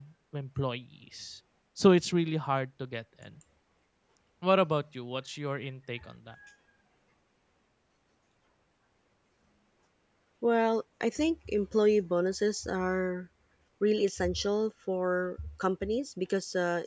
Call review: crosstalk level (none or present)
none